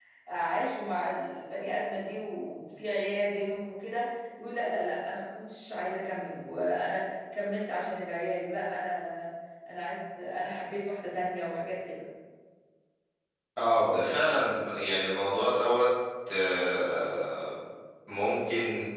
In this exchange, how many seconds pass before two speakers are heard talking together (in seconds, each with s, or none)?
none